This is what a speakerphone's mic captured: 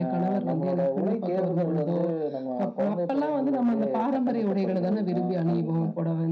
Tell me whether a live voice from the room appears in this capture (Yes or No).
No